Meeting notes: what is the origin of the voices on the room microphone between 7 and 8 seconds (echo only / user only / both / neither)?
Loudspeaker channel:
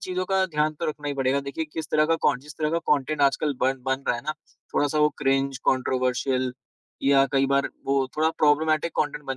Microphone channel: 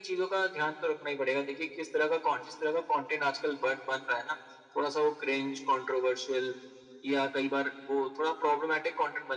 echo only